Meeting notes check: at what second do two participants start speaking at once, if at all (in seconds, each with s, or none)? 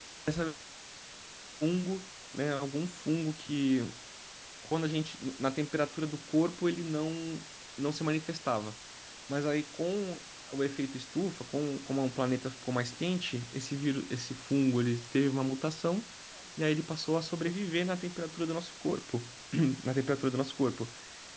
none